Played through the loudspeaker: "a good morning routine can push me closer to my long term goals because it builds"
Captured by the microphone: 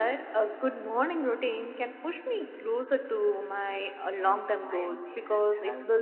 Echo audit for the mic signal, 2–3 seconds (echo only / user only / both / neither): echo only